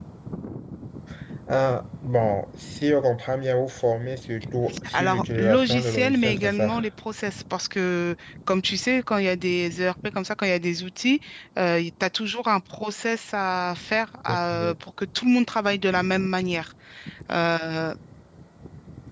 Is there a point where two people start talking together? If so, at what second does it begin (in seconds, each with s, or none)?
4.9 s